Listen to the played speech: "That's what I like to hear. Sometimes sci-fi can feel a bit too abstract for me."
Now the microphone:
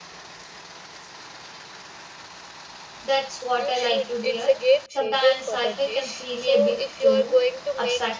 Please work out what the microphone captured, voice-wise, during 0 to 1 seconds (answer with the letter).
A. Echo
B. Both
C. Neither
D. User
C